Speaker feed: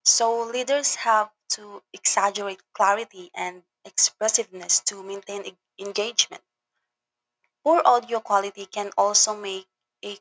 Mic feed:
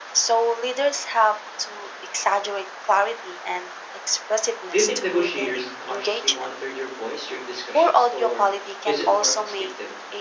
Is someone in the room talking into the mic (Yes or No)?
Yes